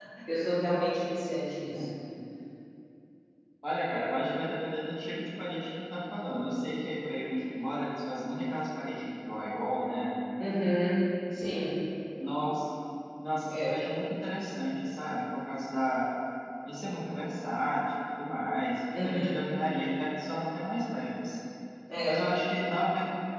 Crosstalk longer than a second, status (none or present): none